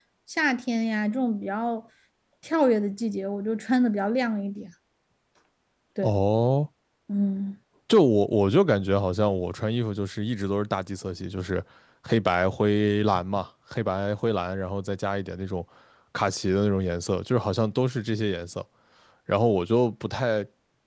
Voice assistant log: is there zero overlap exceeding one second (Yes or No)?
Yes